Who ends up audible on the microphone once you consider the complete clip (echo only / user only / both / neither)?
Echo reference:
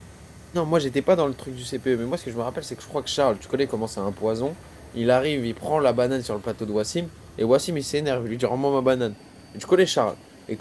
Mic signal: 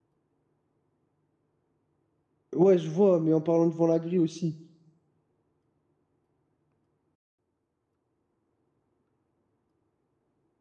user only